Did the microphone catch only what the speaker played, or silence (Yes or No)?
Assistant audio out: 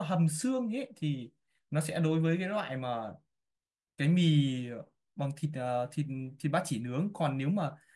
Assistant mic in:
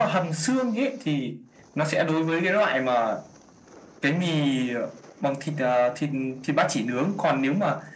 Yes